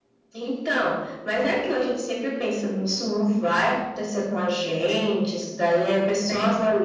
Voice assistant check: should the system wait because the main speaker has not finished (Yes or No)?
Yes